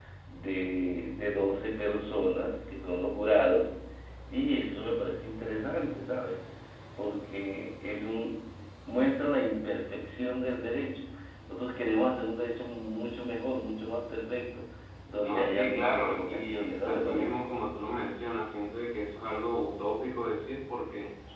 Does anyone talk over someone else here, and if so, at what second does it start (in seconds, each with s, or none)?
15.2 s